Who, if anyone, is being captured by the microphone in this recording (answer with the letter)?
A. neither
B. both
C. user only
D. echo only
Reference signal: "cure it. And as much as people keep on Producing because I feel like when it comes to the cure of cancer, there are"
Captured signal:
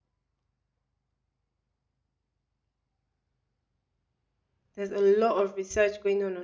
C